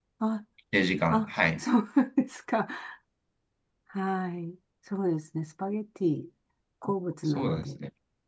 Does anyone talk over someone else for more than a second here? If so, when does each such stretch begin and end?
none

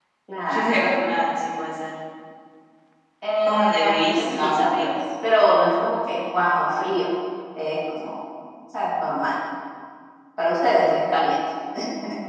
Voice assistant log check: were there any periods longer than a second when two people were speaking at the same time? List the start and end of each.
3.5-4.9

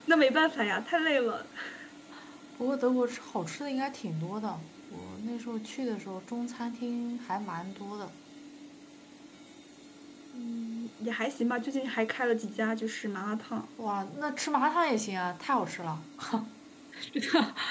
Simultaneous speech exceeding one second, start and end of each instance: none

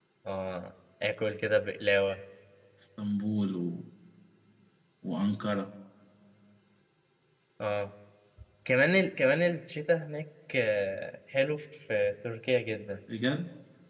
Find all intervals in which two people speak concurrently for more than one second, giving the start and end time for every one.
none

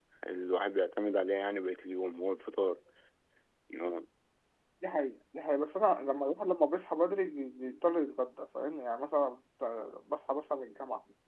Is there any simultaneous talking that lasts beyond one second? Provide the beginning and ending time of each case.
none

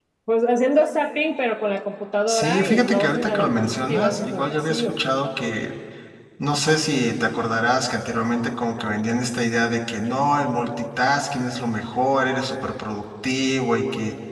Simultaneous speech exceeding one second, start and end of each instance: 2.3-5.0

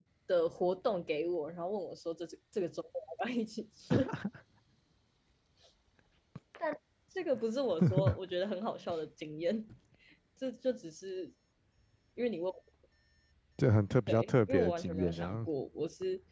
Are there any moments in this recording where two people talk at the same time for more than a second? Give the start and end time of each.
14.1-15.5

